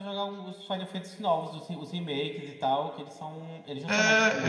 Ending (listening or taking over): taking over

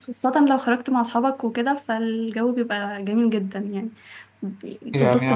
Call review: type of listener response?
taking over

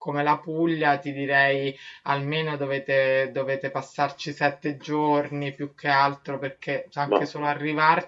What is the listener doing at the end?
listening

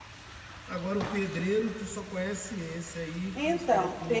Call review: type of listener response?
taking over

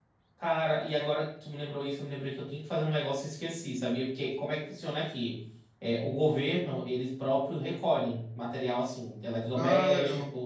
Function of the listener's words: listening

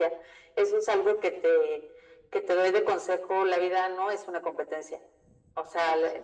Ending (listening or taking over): listening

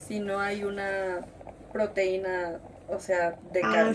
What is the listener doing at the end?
taking over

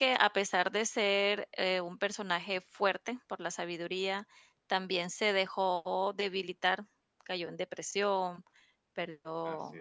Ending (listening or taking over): listening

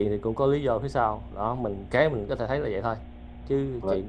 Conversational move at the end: listening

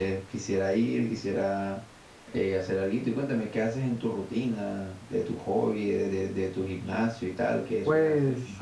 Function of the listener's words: taking over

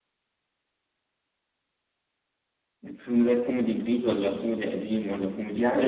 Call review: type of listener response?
taking over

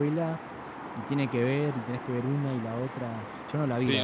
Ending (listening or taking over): taking over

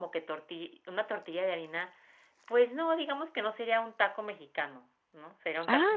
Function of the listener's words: listening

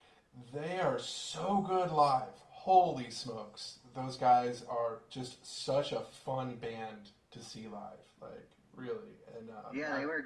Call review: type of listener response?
taking over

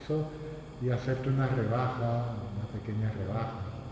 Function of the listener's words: taking over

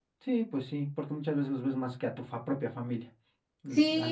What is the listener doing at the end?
taking over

